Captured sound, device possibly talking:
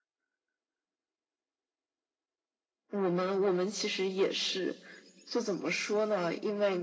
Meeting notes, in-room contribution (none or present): none